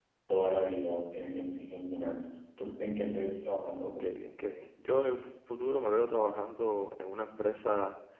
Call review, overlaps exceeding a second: none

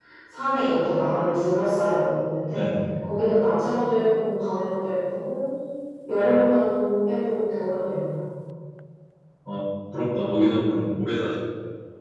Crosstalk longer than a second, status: none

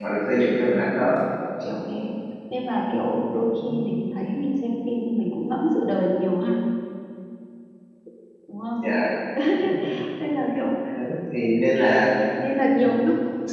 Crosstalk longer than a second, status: none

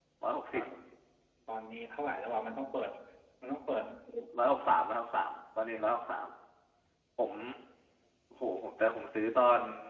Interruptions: none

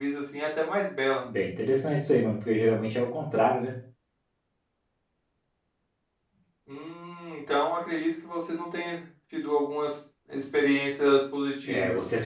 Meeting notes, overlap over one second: none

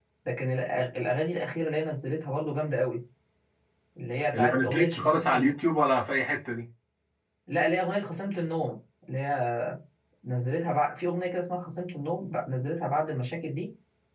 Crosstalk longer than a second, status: present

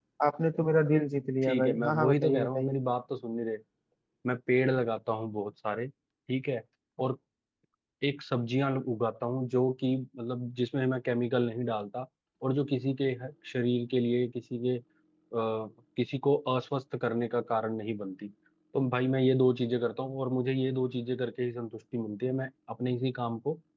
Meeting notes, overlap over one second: present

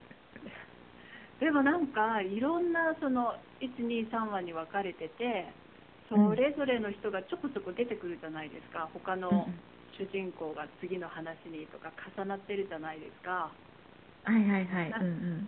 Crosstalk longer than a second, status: none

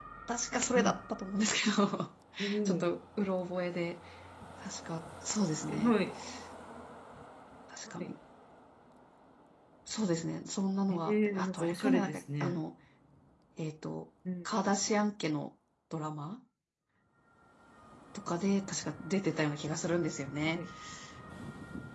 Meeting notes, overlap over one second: present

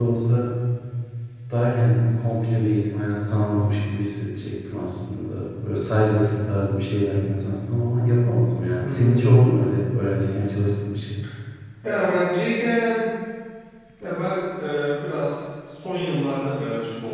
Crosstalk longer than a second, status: none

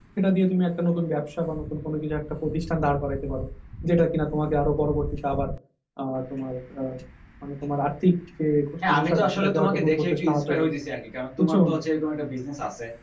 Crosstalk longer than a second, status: present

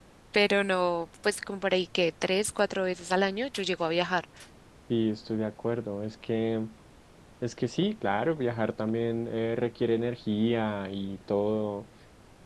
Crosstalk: none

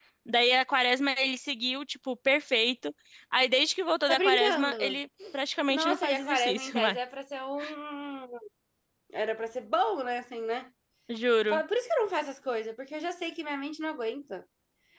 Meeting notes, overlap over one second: present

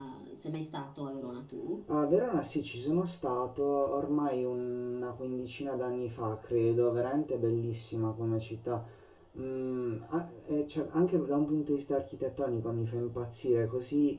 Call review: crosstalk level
none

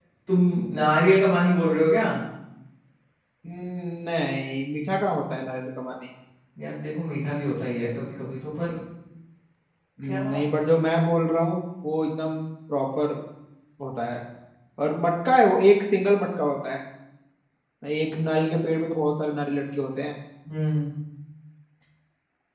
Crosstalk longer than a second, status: none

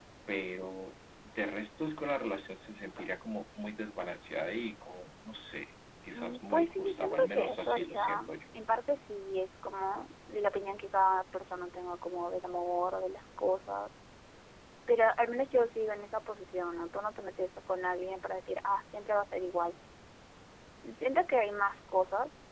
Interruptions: present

